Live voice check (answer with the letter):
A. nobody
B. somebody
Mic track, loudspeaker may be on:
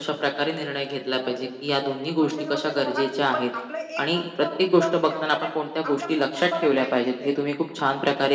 B